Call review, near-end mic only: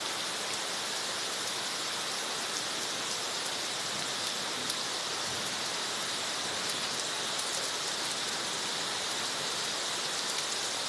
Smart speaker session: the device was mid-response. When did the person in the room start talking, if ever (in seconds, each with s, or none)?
none